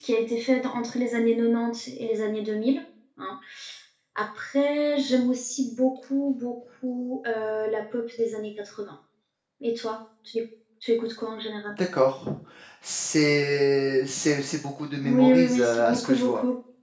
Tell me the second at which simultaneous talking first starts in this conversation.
15.0 s

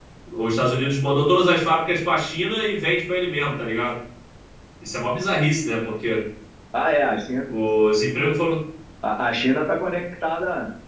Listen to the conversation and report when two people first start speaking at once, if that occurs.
none

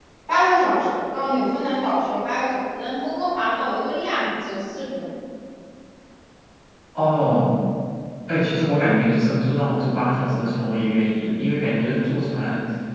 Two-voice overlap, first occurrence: none

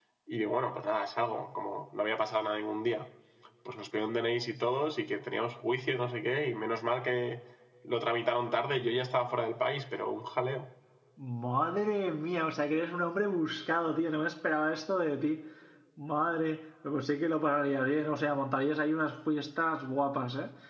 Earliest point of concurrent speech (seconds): none

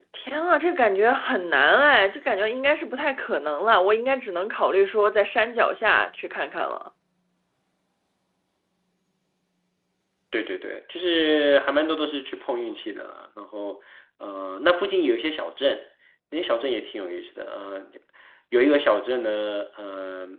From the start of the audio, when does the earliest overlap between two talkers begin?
none

